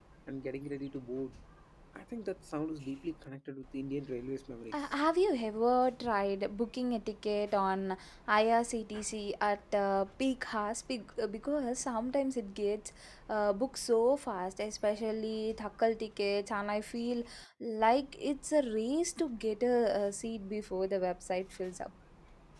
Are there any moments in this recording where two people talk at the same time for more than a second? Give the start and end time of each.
none

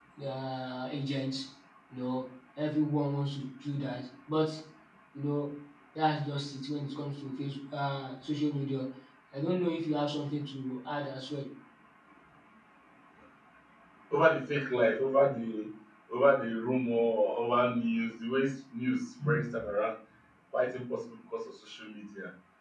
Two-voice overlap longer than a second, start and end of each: none

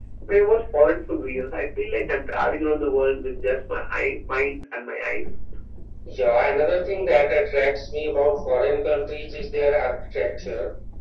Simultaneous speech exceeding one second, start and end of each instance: none

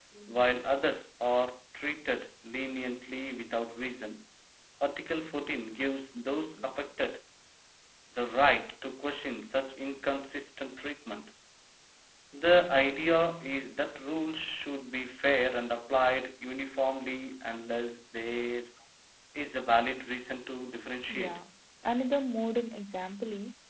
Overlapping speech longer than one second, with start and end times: none

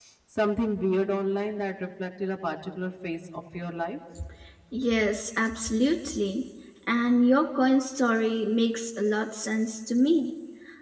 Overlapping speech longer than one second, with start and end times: none

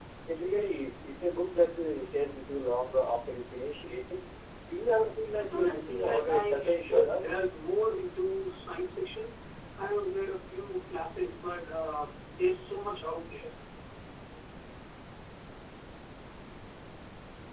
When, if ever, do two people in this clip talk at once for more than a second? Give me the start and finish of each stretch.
5.3-7.2

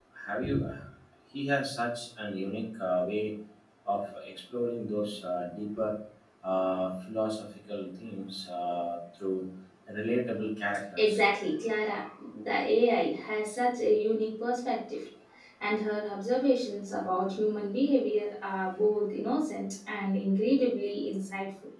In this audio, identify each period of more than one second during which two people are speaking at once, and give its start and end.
none

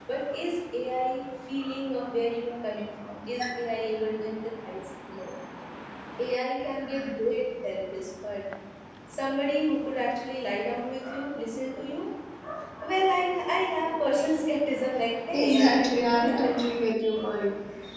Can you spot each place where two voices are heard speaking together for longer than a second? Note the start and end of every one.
15.3-16.6

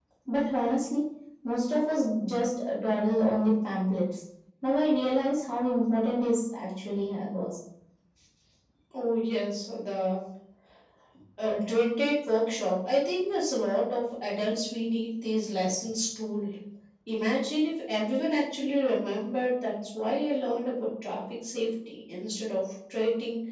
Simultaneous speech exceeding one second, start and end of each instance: none

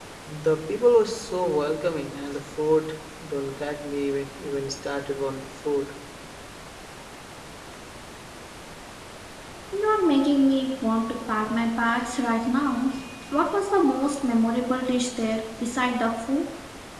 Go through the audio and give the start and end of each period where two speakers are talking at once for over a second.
none

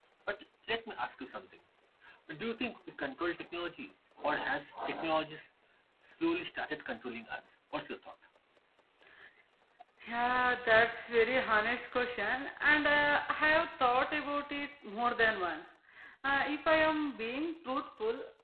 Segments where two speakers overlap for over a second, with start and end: none

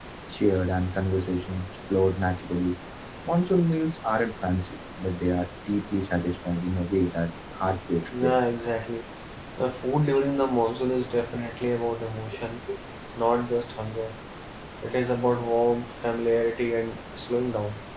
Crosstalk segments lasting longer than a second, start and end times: none

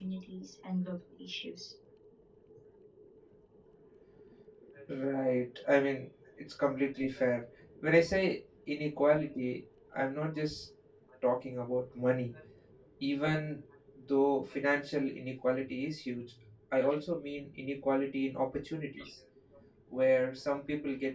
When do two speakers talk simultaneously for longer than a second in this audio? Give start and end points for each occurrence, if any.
none

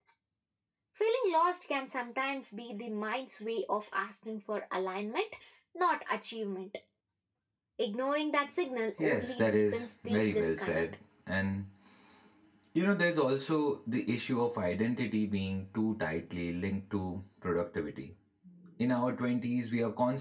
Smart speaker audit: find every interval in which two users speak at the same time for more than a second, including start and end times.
9.0-10.8

